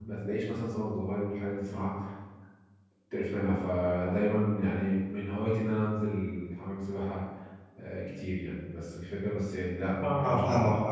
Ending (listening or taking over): taking over